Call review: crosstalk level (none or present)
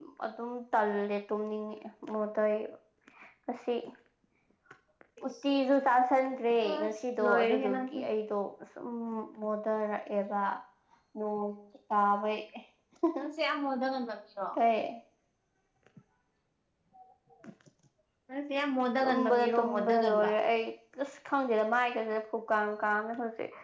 present